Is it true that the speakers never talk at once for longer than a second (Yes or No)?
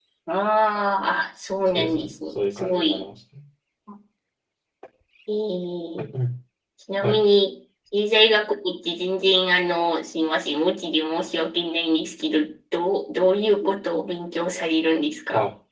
No